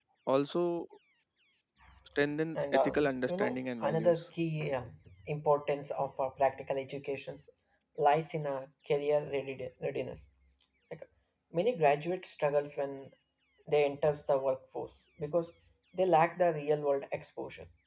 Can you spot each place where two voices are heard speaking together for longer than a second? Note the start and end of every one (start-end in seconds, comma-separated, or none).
2.5-4.2